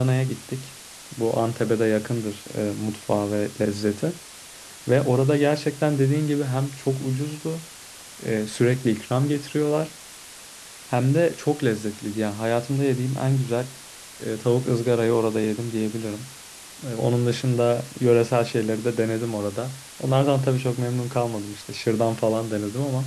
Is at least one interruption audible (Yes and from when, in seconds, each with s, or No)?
No